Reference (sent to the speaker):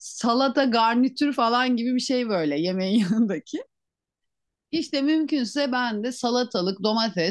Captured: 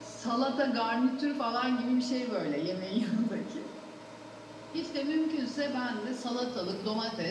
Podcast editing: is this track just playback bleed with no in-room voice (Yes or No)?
Yes